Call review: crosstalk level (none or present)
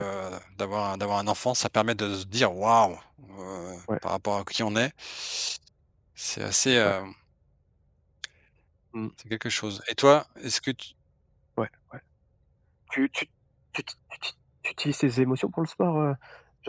none